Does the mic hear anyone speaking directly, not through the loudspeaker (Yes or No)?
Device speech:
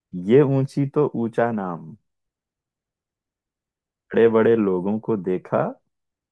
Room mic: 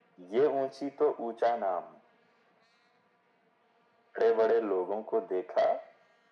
No